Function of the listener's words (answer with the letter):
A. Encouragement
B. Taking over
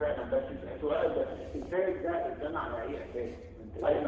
A